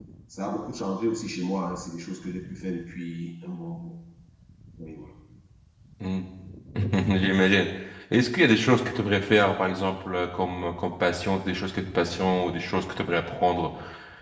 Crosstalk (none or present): none